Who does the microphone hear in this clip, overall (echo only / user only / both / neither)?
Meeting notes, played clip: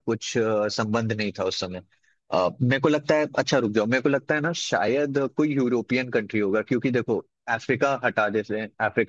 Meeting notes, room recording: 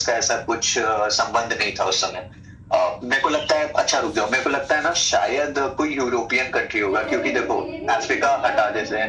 both